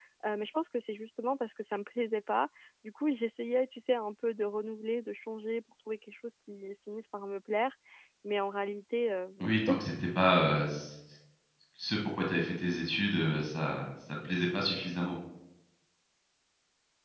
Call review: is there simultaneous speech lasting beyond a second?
No

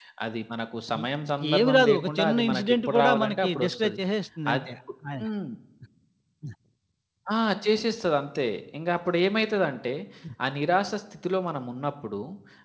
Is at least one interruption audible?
Yes, from 1.6 s

